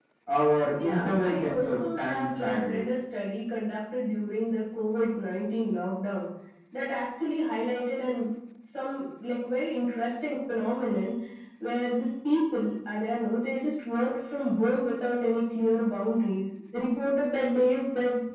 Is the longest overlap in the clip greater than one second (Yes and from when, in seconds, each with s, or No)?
Yes, from 0.8 s